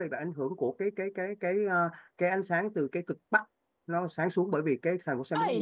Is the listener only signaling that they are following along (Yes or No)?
No